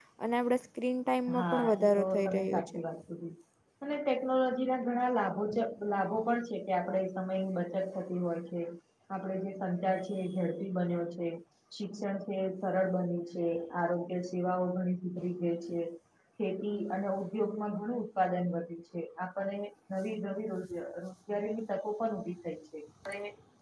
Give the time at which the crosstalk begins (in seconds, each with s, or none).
1.3 s